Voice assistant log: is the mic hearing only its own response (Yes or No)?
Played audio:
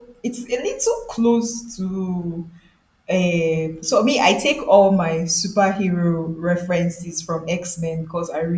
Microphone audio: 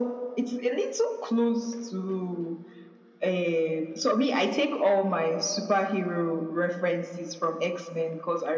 Yes